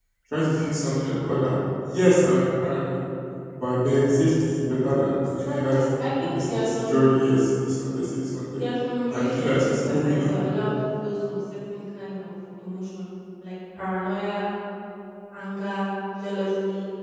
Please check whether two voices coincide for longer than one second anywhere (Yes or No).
Yes